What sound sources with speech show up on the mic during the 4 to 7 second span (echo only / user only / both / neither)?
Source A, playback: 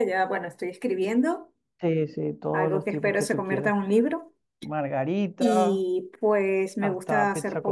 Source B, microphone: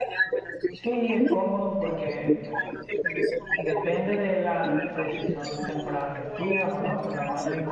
both